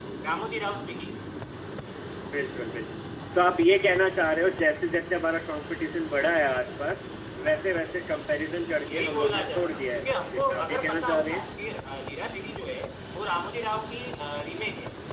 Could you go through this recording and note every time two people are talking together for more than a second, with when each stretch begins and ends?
8.9-11.5

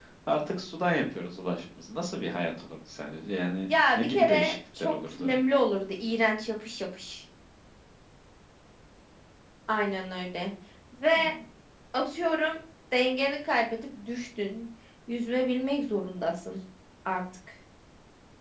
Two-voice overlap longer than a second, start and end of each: 3.7-5.3

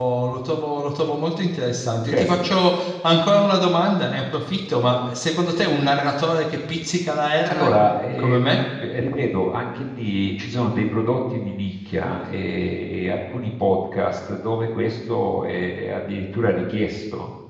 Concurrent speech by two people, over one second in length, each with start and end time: none

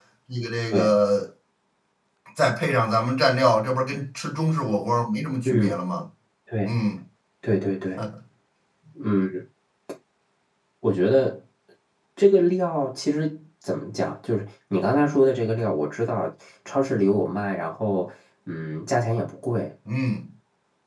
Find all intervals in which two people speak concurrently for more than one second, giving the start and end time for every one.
none

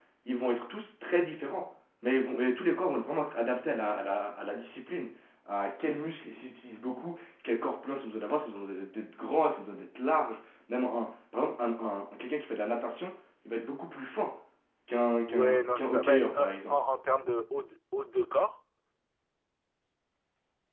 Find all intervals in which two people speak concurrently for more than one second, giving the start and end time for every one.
15.3-16.8

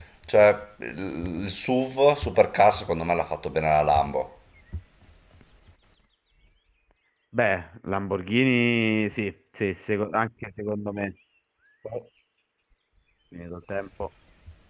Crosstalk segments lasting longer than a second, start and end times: none

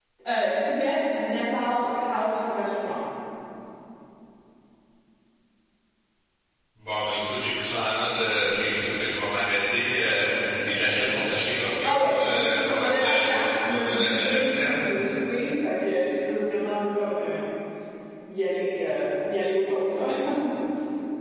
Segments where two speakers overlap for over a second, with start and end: 11.8-14.8

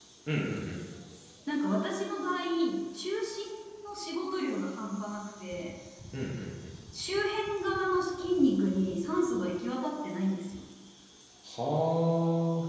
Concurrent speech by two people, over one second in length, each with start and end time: none

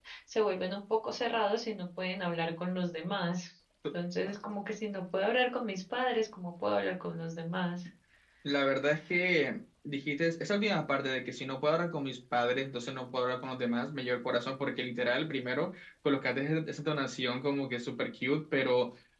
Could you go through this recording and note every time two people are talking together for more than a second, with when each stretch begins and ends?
none

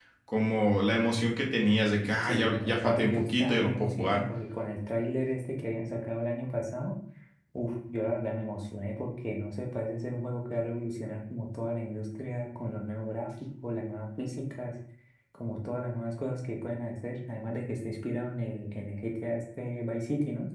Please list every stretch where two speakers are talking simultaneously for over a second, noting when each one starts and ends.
2.2-4.2

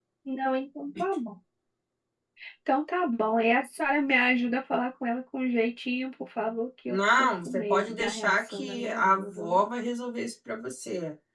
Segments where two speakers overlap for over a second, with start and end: 6.9-9.6

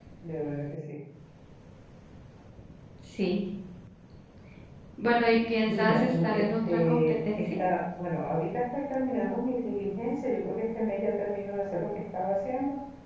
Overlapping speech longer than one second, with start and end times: 5.7-7.5

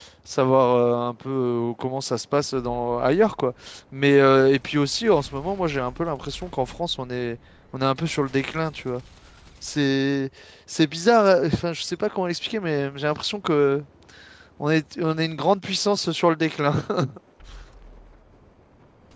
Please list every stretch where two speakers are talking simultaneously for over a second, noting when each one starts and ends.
none

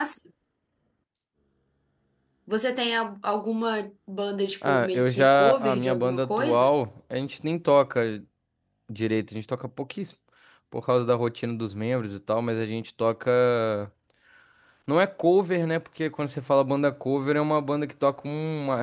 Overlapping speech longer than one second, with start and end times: 4.7-6.7

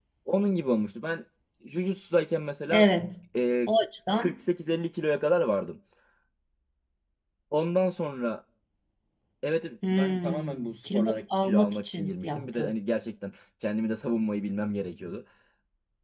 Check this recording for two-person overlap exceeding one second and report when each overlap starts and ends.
9.9-12.7

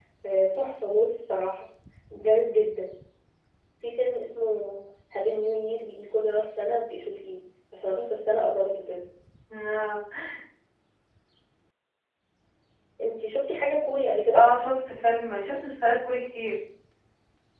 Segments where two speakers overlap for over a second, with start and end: none

